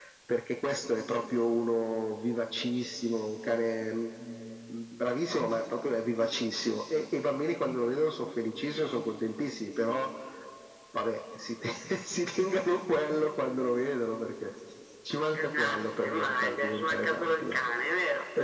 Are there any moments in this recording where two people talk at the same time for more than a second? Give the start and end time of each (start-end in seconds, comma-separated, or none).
15.3-17.6